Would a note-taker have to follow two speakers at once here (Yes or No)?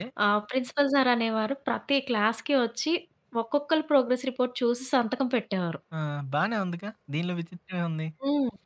No